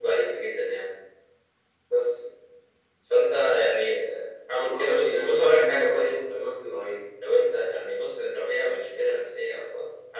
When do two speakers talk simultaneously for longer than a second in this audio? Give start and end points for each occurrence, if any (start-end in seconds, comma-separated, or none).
4.5-6.3